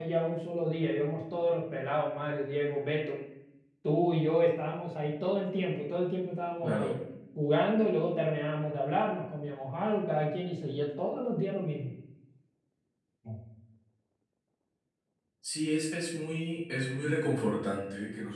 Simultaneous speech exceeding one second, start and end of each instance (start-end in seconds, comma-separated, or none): none